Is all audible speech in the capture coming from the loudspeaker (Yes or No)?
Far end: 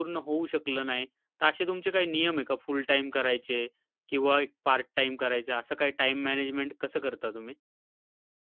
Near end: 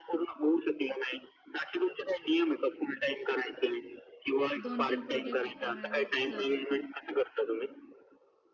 No